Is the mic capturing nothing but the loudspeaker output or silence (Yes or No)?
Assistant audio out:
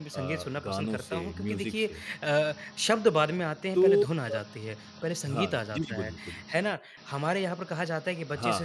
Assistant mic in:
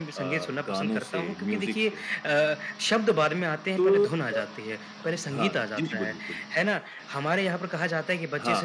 Yes